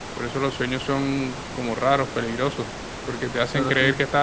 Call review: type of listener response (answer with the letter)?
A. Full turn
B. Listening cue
B